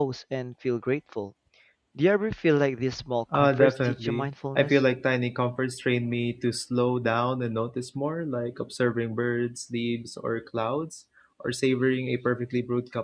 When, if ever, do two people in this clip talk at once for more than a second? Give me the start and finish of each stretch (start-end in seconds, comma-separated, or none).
3.3-4.8